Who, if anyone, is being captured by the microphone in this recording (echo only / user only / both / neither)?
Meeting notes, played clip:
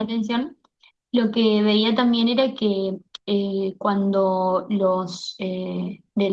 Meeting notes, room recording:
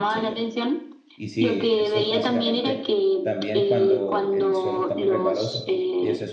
both